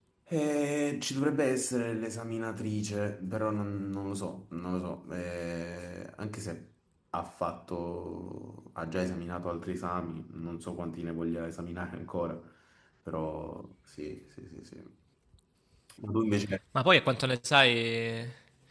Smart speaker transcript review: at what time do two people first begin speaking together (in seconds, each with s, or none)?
none